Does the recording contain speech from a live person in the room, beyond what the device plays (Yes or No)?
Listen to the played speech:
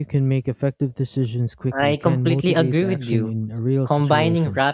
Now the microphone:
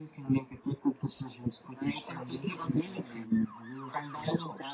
No